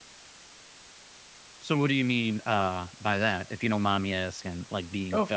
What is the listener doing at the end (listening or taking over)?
taking over